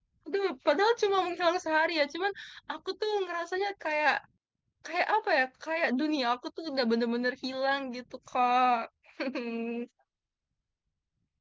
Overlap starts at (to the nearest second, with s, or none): none